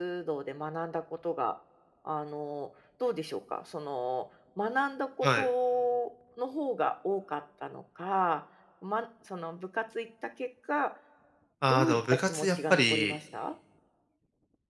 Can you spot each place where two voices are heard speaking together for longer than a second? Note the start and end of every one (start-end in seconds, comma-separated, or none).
11.7-13.2